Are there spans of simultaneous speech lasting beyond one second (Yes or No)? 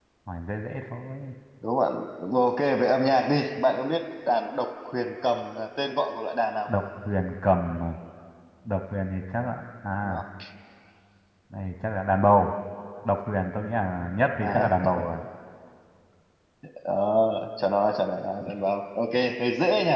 No